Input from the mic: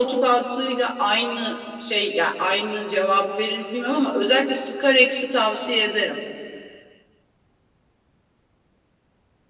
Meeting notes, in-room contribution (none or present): none